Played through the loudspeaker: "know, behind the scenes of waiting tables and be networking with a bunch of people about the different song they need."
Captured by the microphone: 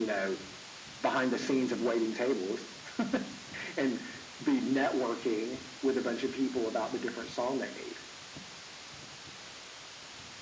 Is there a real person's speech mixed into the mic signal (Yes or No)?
No